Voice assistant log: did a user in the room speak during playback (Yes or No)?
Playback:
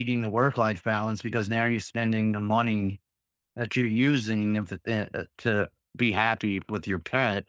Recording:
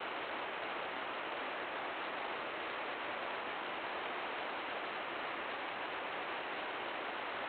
No